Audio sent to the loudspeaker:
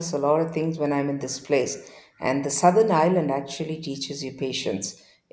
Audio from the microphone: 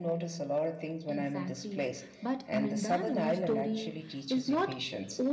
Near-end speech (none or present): present